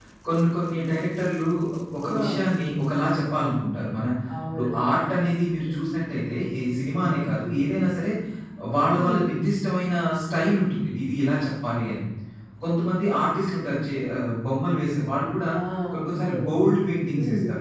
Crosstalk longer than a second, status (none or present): none